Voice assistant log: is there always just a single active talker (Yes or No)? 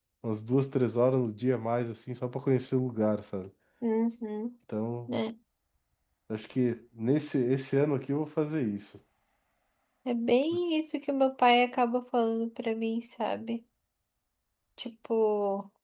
Yes